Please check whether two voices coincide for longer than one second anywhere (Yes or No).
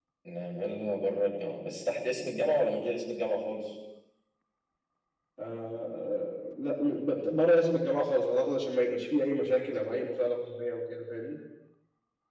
No